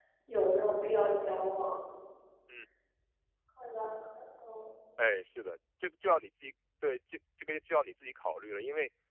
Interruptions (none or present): none